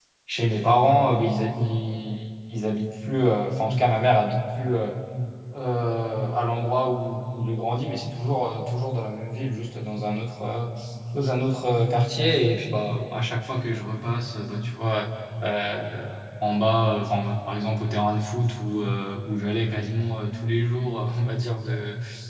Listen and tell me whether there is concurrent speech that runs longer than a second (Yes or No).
No